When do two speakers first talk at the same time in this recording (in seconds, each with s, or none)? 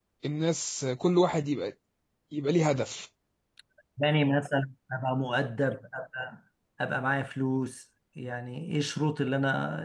none